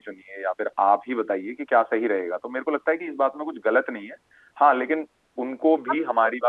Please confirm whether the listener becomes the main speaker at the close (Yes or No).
No